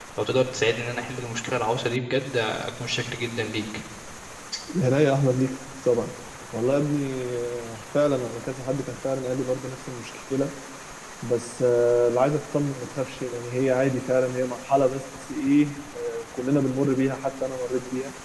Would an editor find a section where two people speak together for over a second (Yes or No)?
No